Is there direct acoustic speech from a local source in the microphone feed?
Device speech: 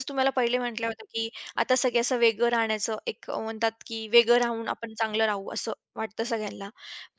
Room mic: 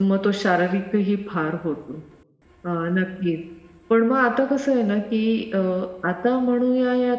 Yes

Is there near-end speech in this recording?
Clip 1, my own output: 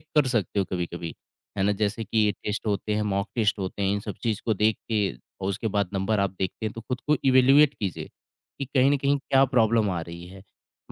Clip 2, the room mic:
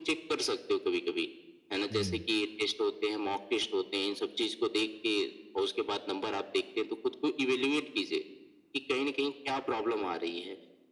Yes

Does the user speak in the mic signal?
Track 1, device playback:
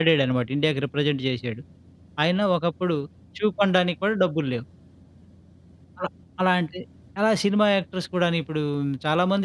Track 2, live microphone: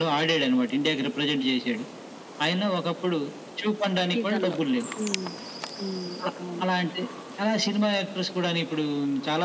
Yes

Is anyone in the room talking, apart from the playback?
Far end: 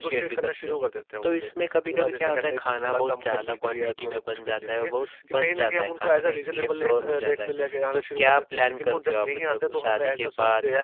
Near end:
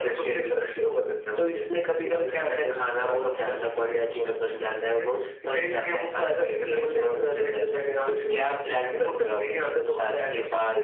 No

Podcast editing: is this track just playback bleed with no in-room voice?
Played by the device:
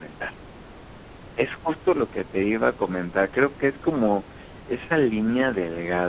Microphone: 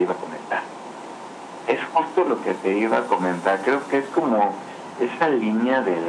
Yes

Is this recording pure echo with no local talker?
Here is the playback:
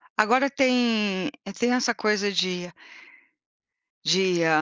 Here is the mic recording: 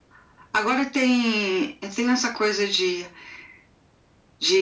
Yes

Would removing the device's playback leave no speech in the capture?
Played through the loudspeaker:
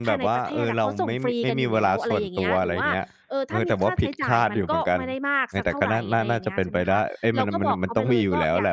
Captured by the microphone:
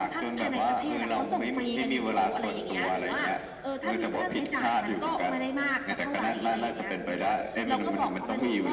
Yes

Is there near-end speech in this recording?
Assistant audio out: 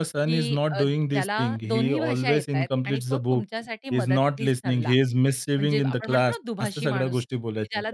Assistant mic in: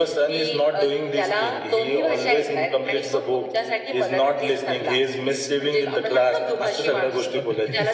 Yes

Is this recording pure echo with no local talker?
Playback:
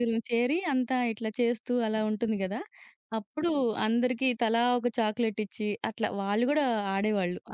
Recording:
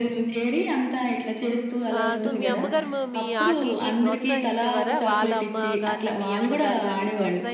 No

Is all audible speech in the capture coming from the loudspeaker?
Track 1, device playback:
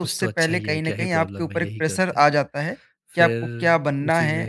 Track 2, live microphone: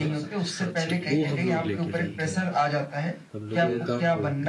No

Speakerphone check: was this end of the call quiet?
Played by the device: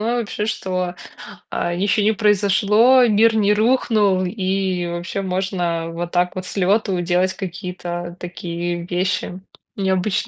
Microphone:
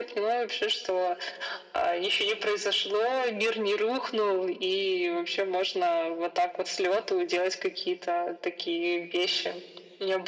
Yes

